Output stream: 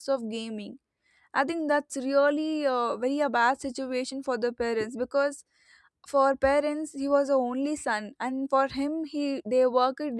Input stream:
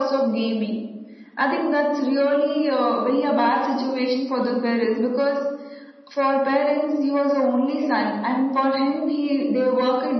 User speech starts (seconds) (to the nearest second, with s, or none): none